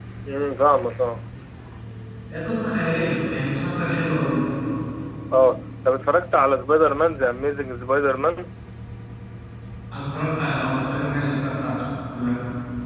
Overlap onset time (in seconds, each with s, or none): none